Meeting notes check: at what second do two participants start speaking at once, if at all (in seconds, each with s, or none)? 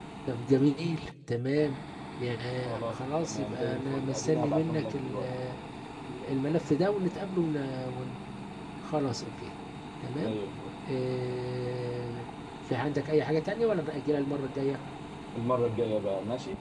2.6 s